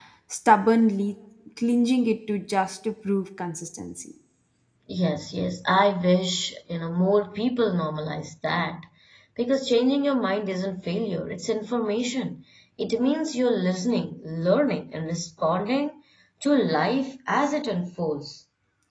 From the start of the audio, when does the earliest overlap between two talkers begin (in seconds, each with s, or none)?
none